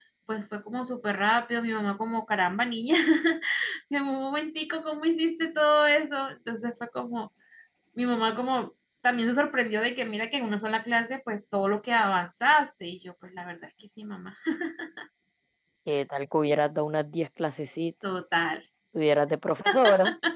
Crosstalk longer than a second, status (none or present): none